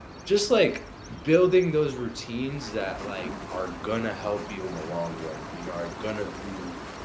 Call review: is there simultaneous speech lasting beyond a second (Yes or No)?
No